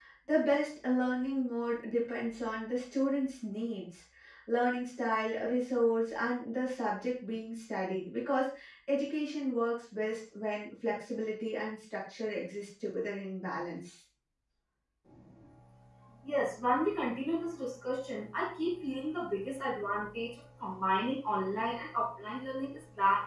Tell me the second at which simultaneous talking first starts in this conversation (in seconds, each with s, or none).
none